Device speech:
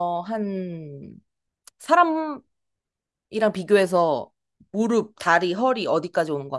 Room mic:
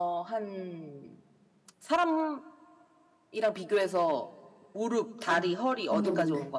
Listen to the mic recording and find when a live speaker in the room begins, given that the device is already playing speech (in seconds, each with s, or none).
5.2 s